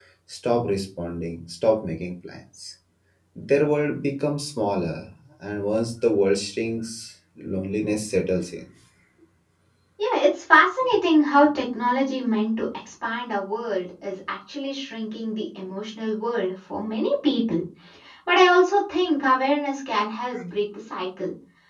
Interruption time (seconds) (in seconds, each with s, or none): none